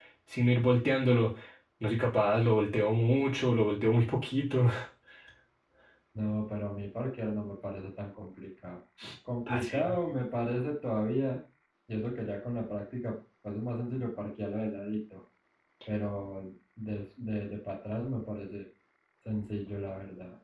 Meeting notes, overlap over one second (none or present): none